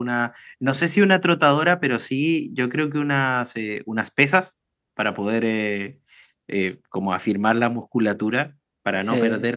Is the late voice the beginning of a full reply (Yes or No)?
No